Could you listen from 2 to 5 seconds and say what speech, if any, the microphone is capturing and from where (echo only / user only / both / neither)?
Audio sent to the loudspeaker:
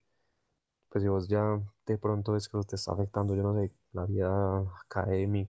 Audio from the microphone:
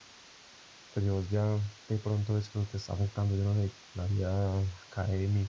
echo only